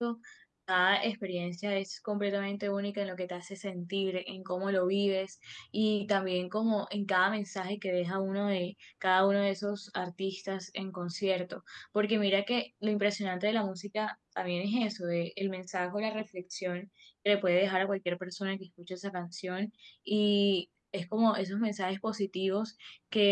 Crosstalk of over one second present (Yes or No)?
No